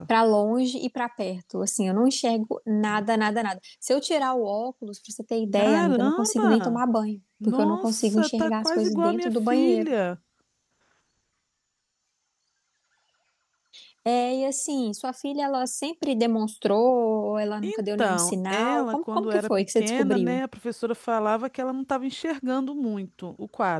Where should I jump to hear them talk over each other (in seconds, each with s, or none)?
5.5 s